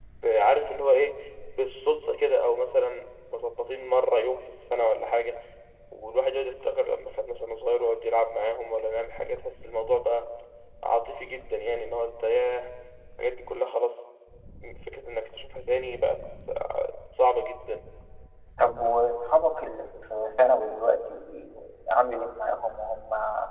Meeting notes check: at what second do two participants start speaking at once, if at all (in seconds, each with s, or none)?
none